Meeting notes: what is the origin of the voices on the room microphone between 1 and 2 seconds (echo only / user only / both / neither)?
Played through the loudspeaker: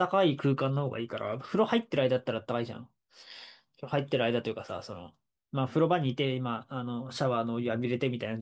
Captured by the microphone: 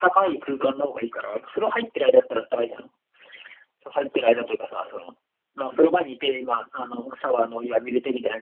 echo only